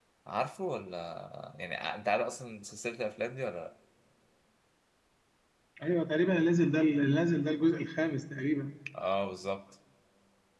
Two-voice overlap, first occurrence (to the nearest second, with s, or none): none